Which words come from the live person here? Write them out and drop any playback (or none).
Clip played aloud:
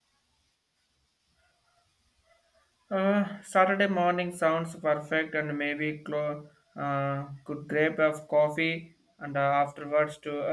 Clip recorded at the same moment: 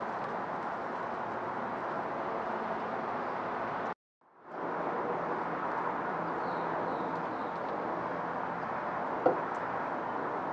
none